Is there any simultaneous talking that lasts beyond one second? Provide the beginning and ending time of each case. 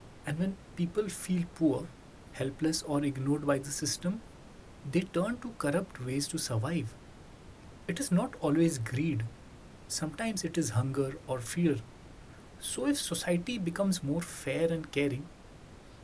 none

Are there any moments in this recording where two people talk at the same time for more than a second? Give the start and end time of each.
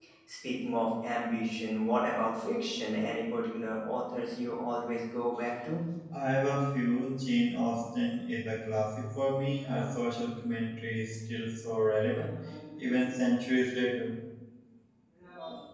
none

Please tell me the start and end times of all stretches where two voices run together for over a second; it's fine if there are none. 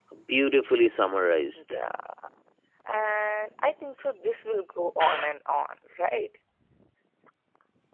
none

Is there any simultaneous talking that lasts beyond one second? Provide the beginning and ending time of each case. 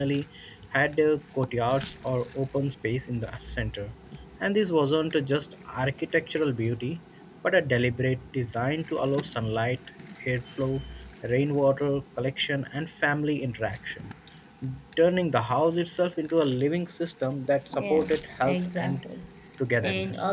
17.7-19.0

